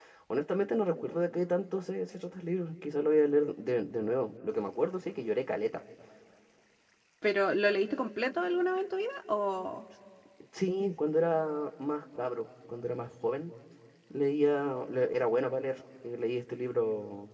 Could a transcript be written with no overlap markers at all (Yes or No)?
Yes